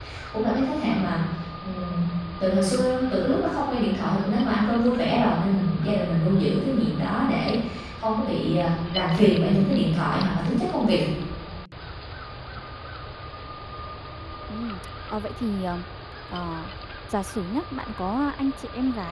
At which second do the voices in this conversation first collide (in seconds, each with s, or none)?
none